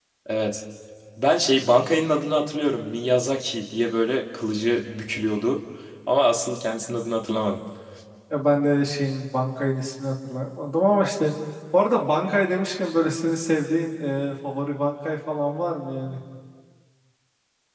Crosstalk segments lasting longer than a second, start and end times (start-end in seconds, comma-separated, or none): none